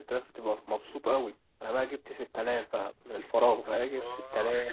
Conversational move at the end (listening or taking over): listening